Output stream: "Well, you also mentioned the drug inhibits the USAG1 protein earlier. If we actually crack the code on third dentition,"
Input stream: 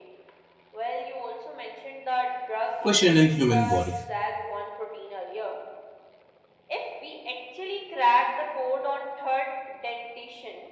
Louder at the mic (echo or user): user